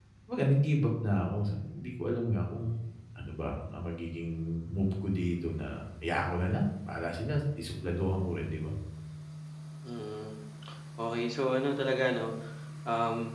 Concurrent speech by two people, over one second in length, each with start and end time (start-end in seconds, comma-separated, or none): none